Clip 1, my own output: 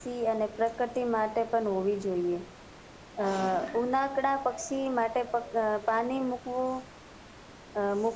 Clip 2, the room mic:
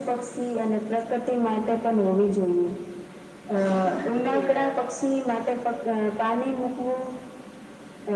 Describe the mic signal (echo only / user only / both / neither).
both